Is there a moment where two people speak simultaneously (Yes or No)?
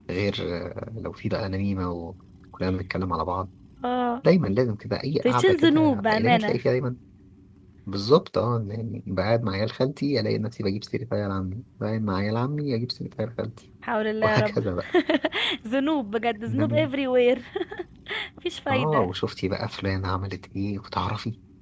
Yes